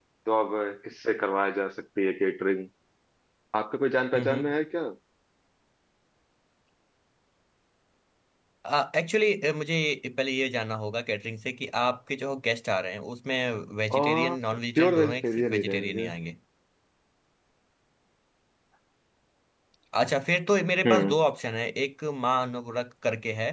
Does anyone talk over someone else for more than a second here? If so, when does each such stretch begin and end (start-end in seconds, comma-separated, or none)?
14.8-16.1